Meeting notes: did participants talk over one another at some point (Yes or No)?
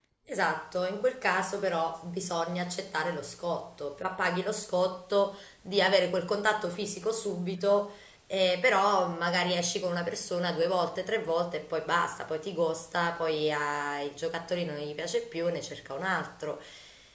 No